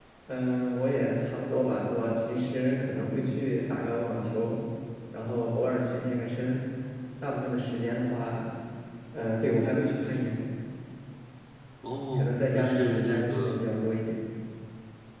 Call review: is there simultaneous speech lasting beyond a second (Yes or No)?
Yes